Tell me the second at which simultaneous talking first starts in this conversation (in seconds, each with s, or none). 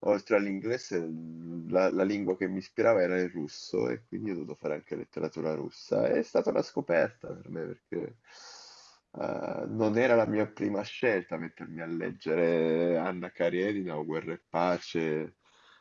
none